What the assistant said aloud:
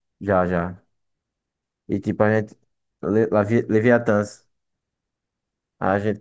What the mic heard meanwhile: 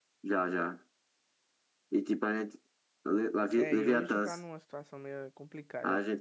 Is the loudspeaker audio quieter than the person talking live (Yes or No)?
No